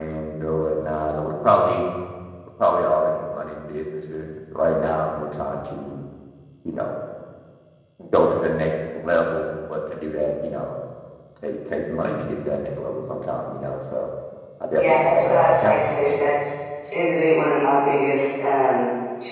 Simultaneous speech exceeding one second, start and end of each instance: 14.8-16.1

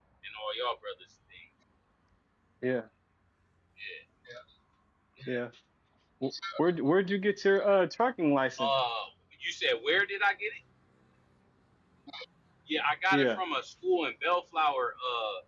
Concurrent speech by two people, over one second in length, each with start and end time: none

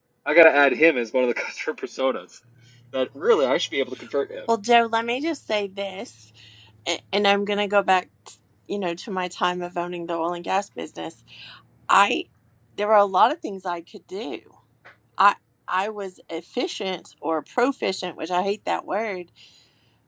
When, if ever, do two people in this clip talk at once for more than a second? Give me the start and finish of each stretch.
none

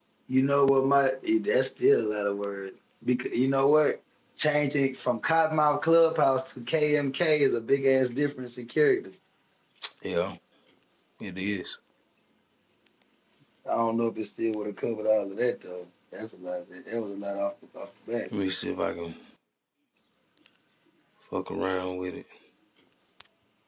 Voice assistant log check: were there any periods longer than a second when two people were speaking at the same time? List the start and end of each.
none

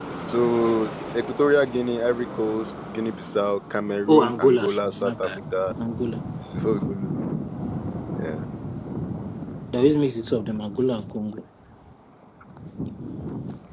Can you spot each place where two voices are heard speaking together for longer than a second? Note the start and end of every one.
4.1-5.3

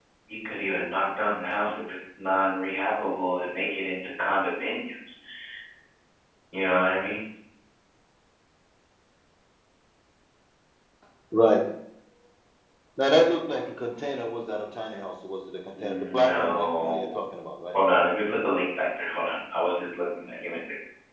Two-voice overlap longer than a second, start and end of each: 15.8-17.1

